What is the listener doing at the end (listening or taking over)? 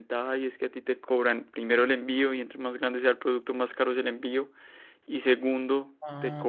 listening